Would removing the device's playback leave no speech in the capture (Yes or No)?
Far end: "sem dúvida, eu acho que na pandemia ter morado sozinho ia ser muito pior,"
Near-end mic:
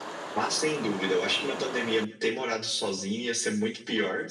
Yes